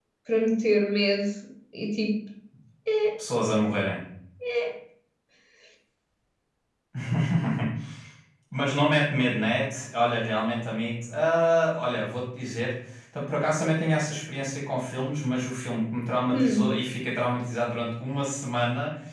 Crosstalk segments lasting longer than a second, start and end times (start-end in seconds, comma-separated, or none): none